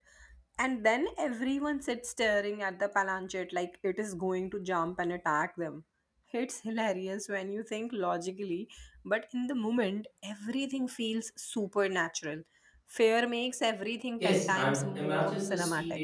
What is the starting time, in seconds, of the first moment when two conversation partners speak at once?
14.2 s

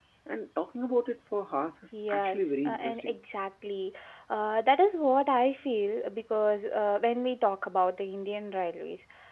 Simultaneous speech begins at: 1.9 s

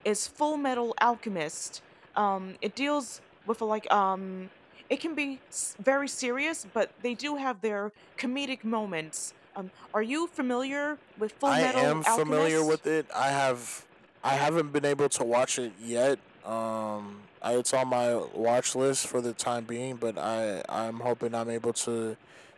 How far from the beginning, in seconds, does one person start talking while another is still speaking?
11.4 s

